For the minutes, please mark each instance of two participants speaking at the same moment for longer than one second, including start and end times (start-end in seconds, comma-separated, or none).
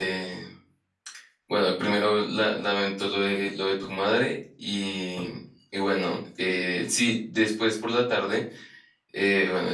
none